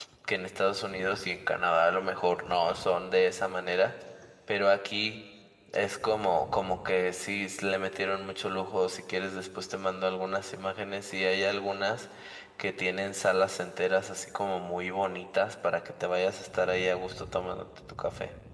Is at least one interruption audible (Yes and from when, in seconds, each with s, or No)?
No